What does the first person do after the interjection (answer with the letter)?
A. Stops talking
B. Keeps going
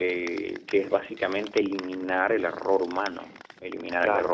B